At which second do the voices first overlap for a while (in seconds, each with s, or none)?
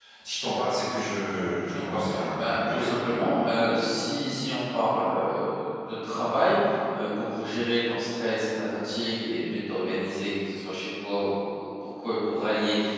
1.6 s